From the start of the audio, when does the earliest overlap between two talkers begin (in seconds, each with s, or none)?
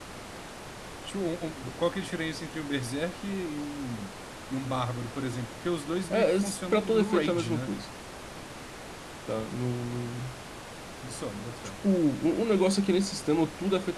6.1 s